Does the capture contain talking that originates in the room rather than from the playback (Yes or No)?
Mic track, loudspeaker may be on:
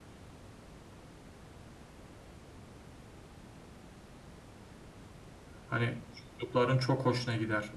Yes